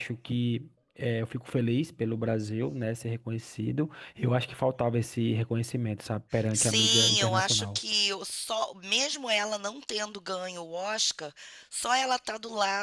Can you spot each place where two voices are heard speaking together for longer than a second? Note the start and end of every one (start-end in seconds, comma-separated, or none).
6.5-7.8